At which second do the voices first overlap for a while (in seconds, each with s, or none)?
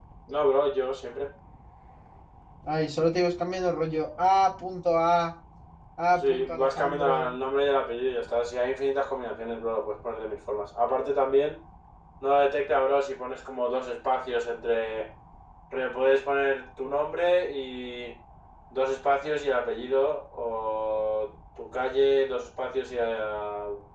6.1 s